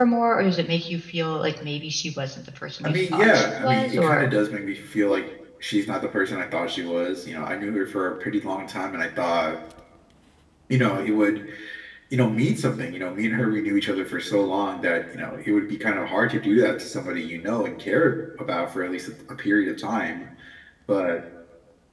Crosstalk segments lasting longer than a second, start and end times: 2.8-4.3

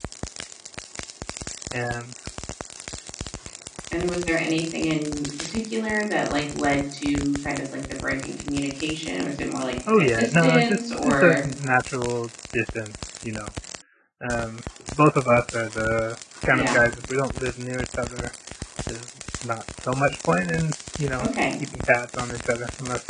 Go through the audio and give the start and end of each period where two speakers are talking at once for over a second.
9.9-11.5

